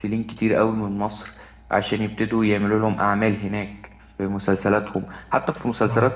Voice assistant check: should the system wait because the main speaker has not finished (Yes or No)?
Yes